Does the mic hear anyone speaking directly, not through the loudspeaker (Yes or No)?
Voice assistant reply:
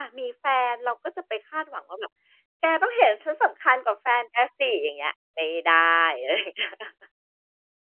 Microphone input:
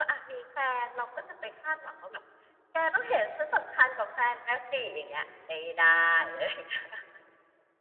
No